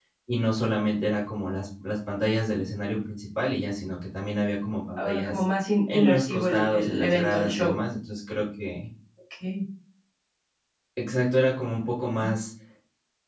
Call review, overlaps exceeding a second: present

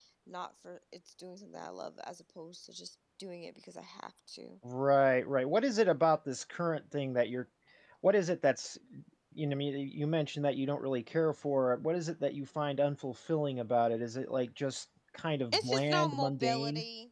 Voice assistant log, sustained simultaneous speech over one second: present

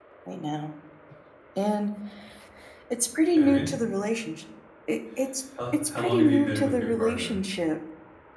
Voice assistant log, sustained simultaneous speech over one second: present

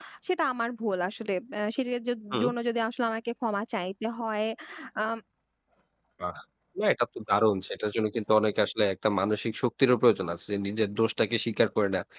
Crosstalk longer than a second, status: none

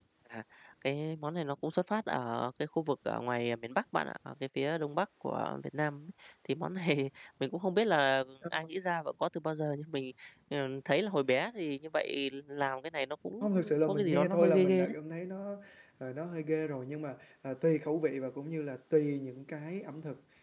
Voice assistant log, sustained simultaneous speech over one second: present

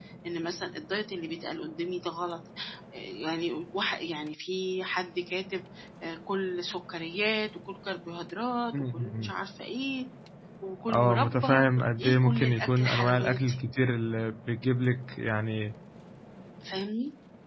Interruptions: present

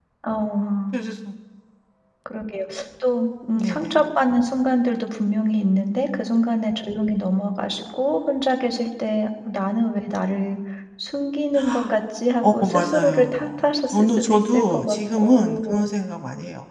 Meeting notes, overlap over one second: present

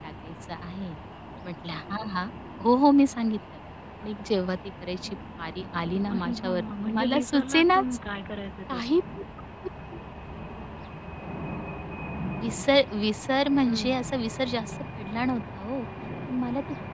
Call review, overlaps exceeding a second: present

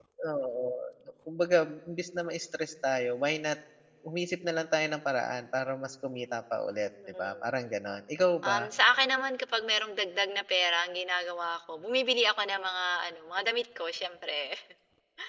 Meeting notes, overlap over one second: none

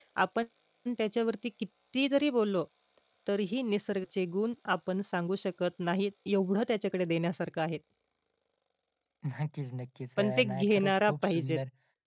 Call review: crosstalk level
present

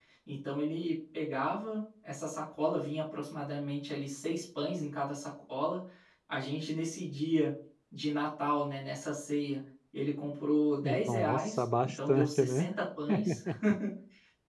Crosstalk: present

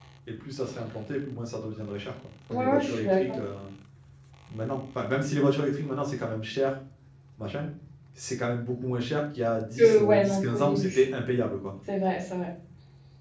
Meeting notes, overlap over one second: present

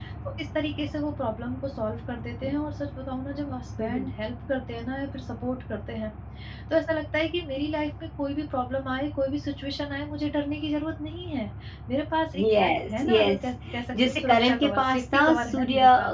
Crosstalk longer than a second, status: present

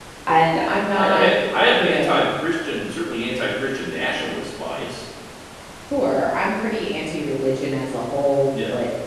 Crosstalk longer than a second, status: none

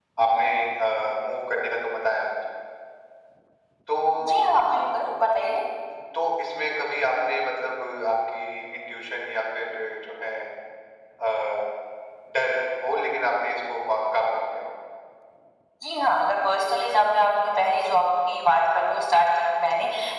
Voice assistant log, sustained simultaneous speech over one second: none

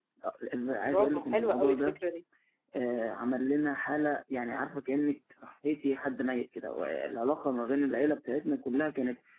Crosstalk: present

